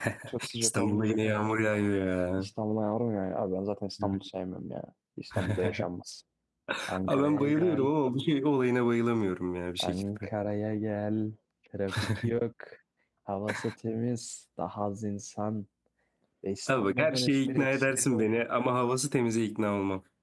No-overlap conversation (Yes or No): No